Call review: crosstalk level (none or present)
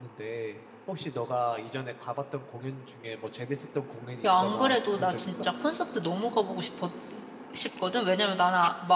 present